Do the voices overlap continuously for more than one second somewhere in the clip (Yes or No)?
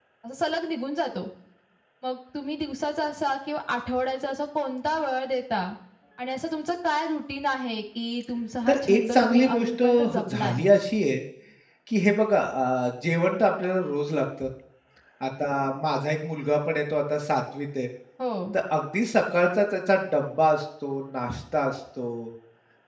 Yes